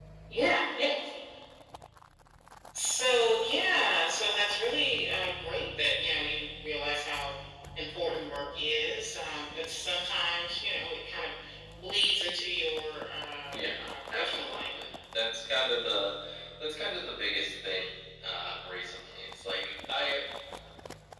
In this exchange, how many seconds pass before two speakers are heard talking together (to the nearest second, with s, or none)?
14 s